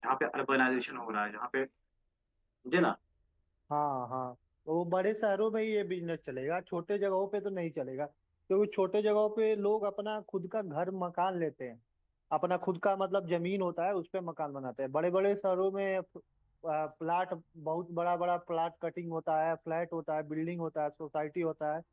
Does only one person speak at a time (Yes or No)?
Yes